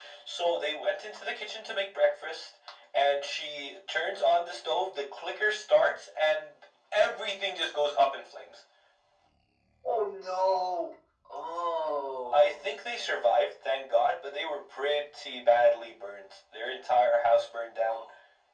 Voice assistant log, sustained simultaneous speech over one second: none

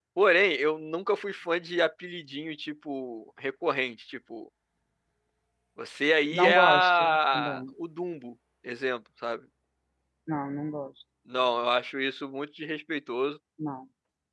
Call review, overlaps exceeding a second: present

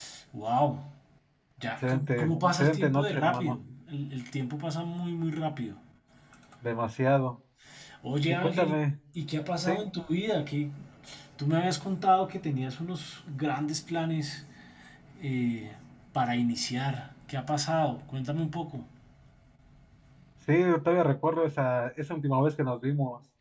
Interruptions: present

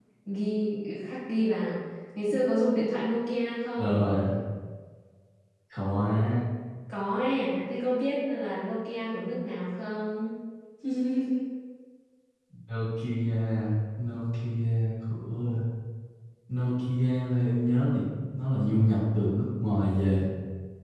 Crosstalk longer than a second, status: none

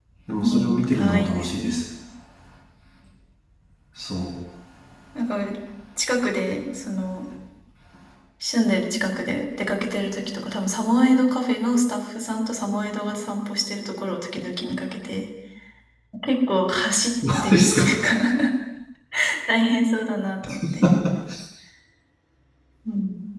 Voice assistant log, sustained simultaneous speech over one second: present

